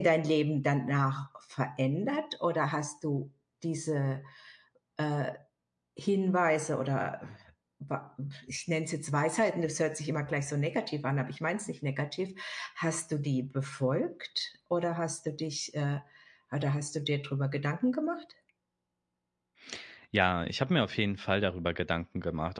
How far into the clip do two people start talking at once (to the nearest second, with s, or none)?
none